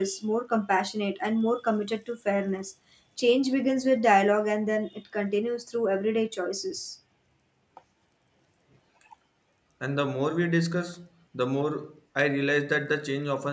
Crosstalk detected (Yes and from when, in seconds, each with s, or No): No